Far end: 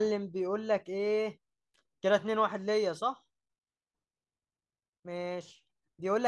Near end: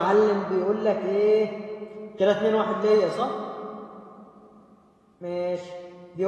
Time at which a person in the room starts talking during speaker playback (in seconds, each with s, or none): none